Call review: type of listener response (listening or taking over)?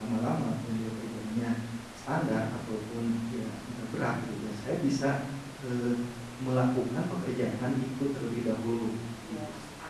taking over